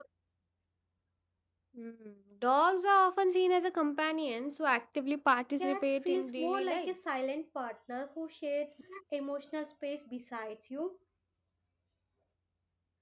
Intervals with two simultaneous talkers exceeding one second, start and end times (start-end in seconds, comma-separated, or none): 5.6-6.9